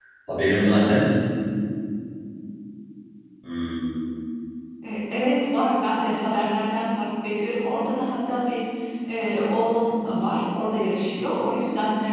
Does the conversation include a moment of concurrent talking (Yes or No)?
No